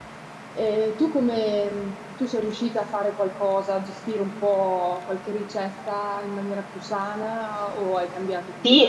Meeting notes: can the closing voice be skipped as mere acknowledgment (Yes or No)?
No